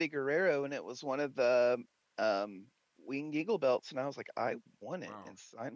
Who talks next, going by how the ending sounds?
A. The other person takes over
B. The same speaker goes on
A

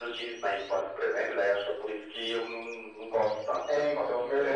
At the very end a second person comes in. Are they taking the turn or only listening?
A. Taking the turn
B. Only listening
A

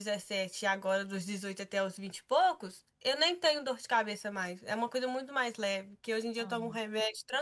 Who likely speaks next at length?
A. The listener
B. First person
B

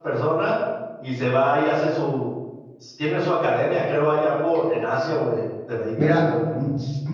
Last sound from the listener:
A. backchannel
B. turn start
B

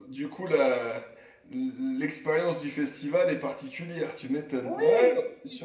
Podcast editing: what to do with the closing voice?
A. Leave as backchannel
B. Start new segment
B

